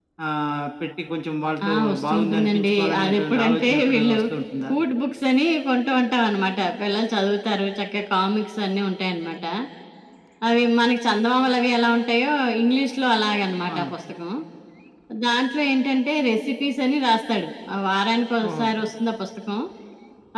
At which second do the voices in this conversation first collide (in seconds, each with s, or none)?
1.7 s